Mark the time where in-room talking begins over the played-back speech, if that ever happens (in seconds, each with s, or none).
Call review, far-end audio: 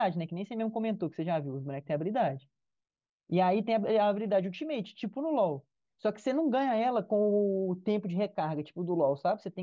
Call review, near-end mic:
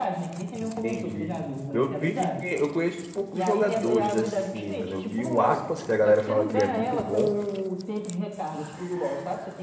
0.6 s